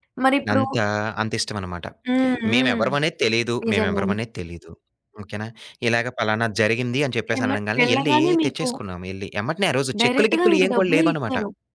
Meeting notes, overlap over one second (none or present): present